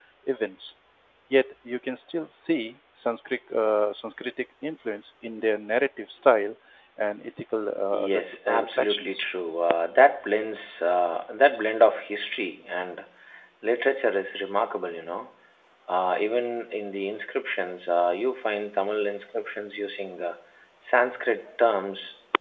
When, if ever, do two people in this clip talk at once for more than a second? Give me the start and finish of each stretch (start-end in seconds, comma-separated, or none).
7.9-9.2